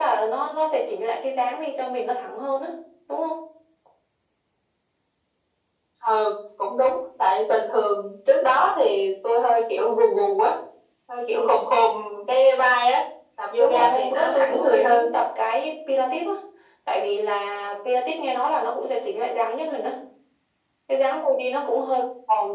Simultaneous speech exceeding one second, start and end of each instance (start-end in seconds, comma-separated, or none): 13.6-15.1